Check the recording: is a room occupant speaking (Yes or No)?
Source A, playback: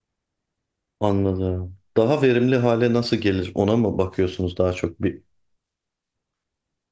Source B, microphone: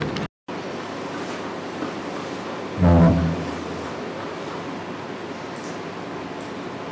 Yes